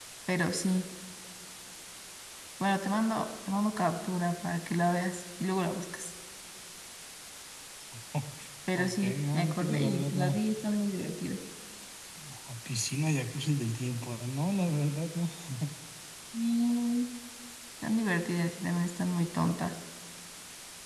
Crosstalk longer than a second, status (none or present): present